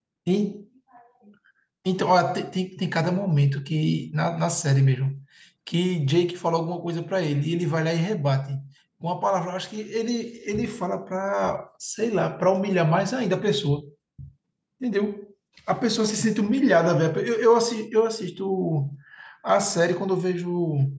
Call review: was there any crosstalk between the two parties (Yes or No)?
No